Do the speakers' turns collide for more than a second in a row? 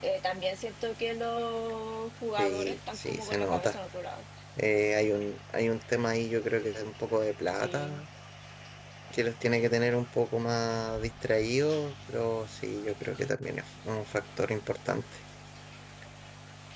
Yes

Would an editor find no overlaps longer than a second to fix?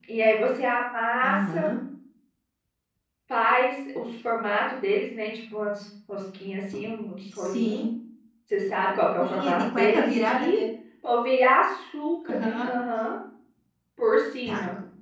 No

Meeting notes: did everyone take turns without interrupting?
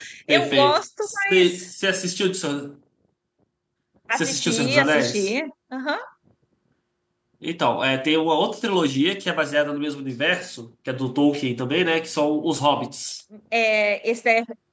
No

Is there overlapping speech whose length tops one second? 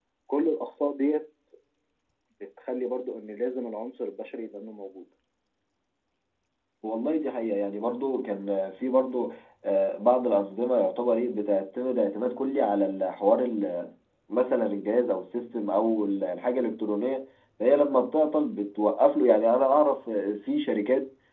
No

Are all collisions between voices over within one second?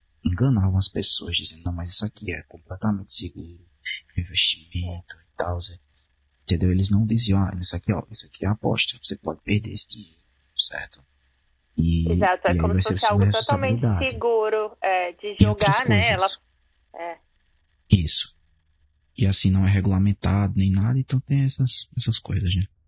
No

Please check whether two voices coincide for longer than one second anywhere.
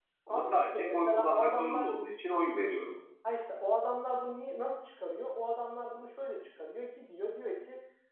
Yes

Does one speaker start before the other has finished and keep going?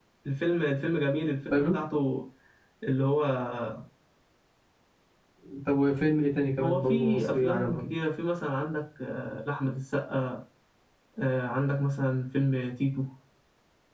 Yes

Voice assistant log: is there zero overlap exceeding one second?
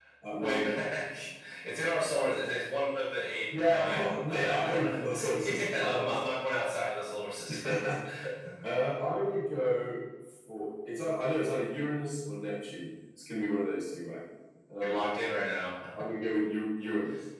No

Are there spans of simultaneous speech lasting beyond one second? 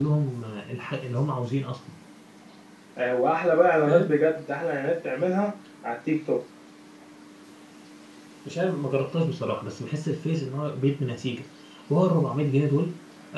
No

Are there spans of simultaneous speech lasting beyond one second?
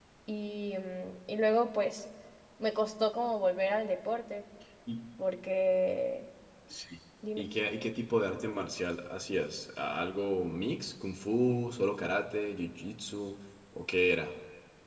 No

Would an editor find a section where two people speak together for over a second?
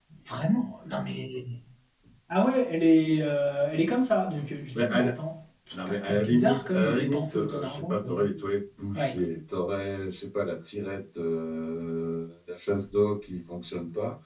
Yes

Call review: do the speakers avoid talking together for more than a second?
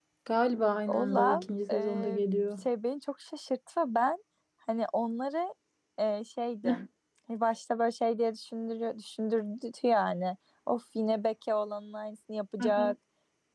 No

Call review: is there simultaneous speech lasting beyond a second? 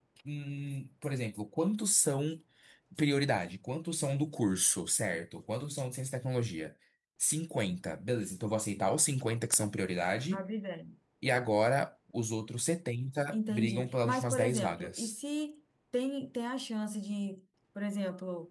Yes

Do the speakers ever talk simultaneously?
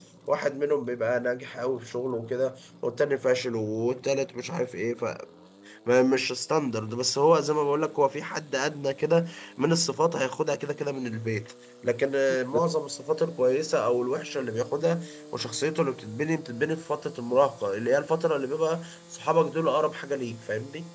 No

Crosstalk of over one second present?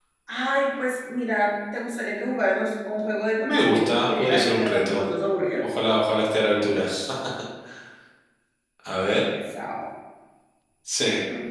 Yes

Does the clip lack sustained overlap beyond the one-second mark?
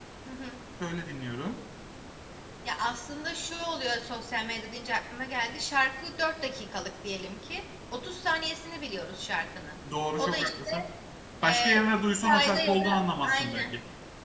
No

